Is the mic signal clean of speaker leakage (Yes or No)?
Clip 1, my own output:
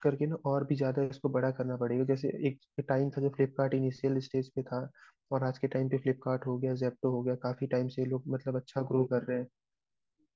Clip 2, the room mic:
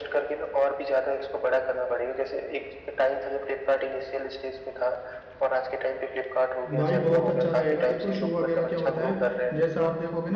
No